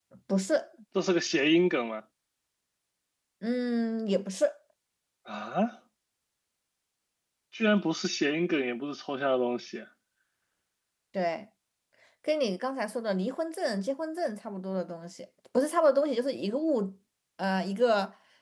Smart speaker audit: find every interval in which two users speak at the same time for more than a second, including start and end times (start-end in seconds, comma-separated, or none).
none